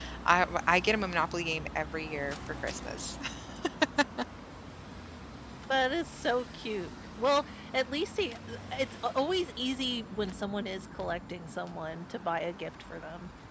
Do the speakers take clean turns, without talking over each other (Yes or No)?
Yes